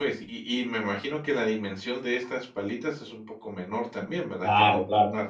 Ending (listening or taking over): taking over